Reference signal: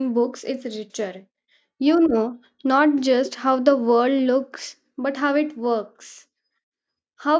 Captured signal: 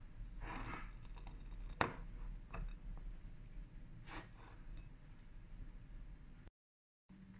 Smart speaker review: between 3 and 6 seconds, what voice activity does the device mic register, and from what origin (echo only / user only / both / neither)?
neither